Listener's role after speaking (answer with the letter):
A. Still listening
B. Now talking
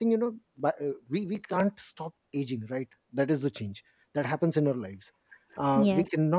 A